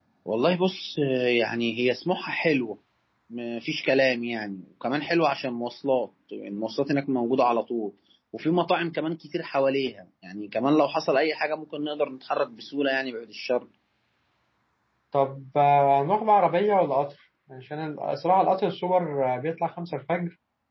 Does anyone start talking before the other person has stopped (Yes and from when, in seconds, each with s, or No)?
No